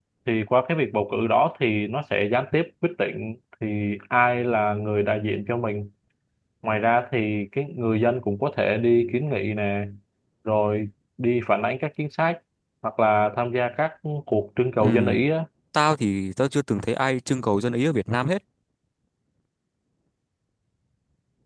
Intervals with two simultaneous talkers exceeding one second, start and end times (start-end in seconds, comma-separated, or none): none